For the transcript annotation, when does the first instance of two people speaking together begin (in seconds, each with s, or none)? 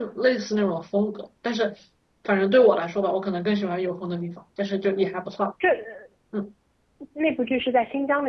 none